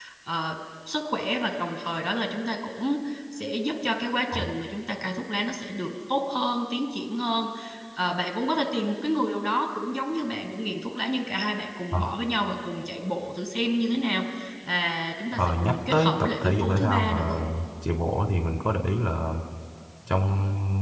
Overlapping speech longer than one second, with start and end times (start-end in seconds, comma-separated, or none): 15.3-17.3